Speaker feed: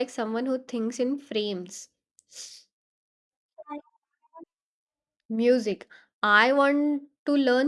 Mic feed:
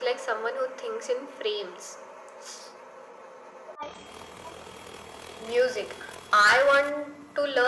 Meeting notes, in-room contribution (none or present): none